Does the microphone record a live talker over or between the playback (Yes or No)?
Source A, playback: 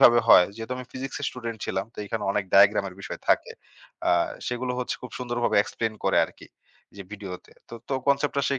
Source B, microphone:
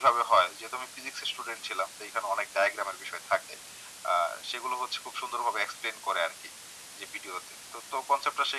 No